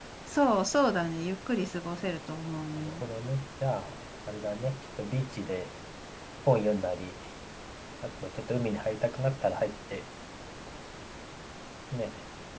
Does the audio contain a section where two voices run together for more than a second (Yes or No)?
No